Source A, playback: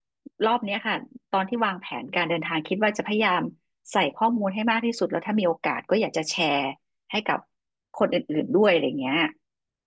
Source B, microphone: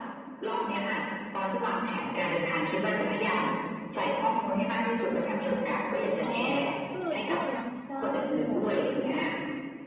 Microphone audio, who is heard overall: both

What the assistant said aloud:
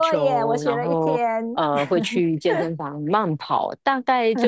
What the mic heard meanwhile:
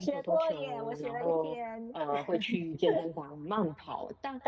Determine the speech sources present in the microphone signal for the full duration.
echo only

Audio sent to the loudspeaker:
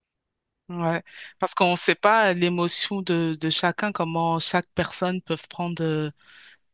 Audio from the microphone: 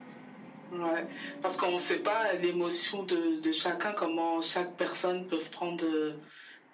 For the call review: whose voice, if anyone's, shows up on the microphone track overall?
echo only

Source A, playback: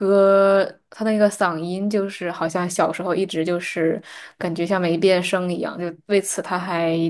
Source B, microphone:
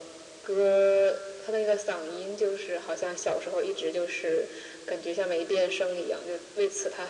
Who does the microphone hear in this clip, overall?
echo only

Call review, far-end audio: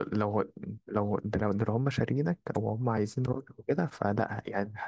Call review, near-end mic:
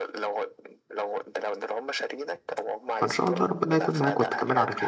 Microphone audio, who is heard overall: both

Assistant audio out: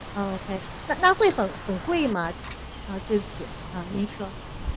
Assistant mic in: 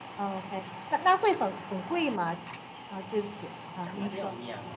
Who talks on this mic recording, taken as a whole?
both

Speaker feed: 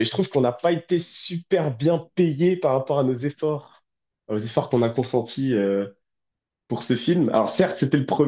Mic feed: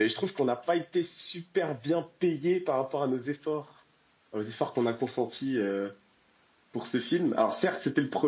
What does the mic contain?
echo only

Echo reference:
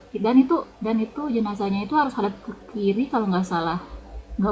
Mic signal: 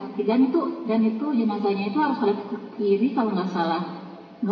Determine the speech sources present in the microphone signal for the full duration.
echo only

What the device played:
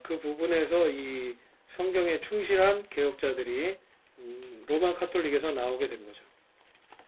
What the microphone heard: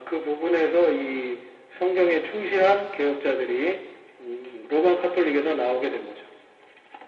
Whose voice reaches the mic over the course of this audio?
echo only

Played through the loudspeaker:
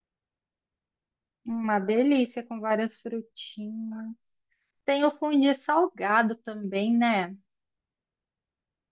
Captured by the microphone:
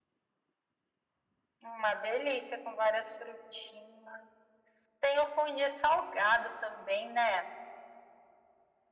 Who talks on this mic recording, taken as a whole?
echo only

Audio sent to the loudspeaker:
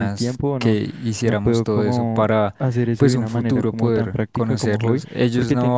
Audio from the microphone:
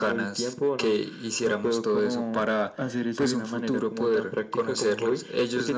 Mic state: echo only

